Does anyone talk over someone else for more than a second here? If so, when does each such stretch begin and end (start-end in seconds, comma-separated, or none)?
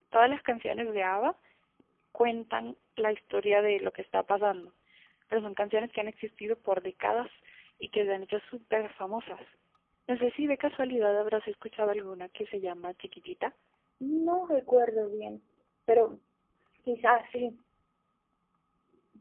none